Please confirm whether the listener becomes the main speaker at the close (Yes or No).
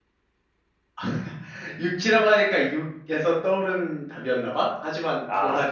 Yes